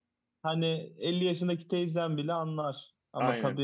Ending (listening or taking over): listening